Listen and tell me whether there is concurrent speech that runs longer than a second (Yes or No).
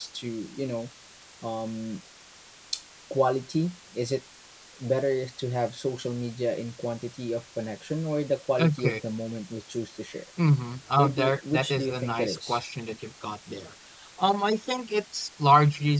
Yes